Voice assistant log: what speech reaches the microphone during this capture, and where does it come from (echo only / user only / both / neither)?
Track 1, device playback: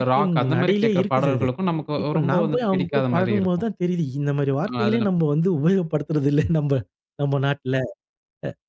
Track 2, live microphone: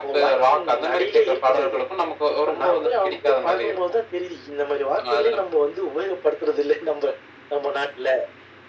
echo only